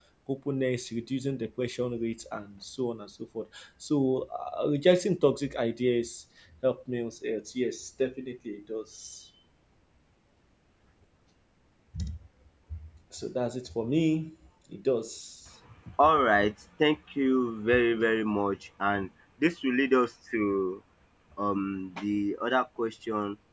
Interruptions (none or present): none